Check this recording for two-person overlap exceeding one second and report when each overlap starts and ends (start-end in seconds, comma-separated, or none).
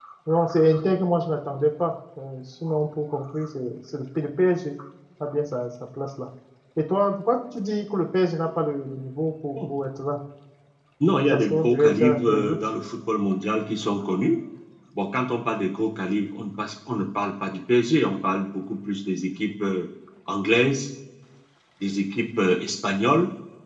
11.3-12.6